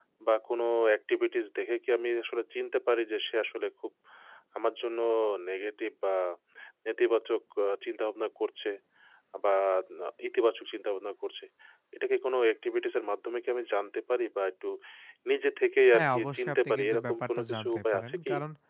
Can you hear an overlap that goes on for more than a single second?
Yes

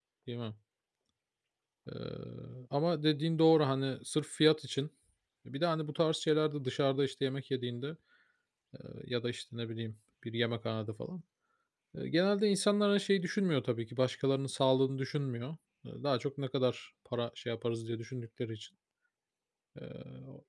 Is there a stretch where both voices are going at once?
No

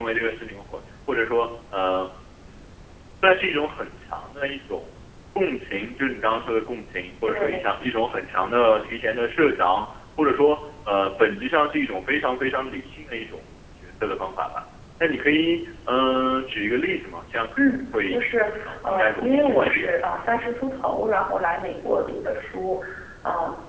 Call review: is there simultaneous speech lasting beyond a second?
Yes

